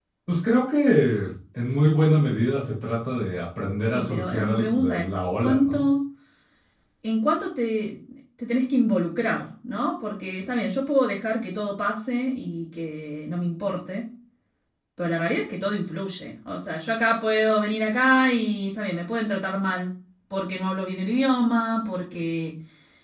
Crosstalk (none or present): present